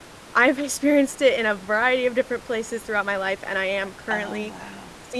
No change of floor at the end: Yes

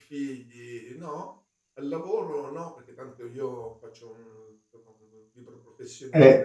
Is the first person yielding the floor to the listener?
Yes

